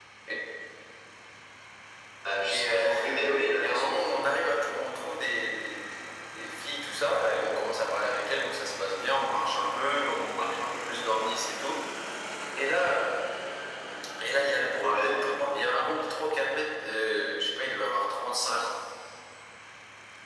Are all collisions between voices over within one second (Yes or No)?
Yes